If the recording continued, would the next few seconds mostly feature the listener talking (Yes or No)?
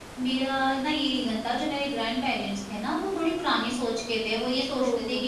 No